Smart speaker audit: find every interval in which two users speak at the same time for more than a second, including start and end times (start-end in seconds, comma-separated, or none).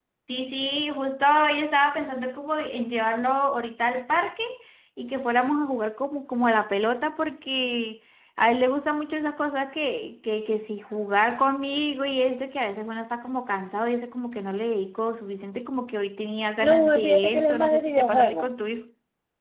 16.6-18.5